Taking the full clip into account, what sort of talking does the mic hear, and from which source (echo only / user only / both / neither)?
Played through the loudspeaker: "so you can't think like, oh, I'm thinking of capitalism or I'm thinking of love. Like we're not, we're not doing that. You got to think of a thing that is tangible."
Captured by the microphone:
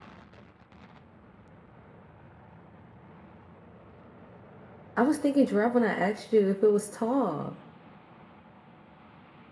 user only